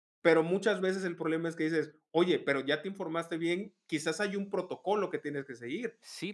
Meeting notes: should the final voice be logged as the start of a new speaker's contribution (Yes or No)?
Yes